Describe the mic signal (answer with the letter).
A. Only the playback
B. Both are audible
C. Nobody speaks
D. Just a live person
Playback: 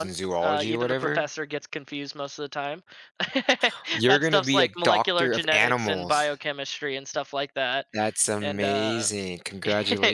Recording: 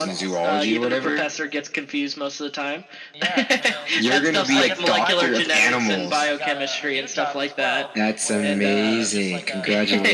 B